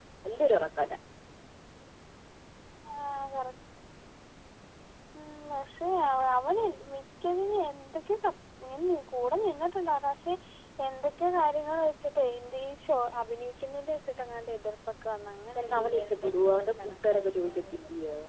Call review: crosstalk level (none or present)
present